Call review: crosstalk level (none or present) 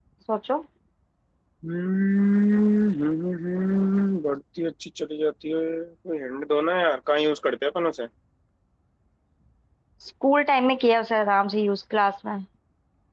none